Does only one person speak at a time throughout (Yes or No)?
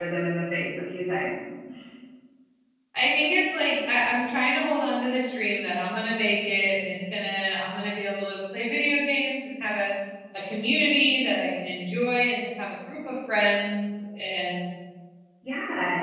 Yes